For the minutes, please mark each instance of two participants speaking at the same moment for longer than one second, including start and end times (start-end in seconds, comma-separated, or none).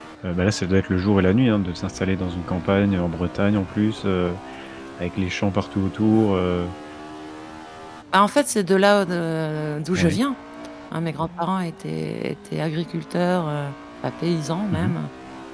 none